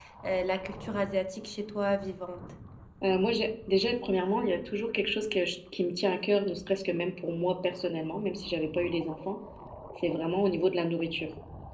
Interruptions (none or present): none